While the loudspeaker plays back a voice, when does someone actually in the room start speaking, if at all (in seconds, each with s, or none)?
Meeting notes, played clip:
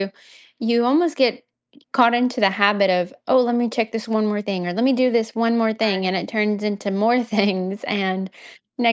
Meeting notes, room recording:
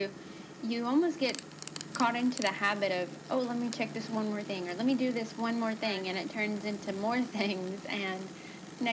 none